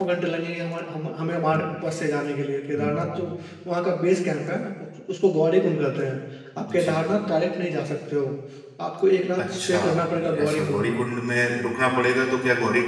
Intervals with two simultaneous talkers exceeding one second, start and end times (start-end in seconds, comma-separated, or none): 9.4-11.0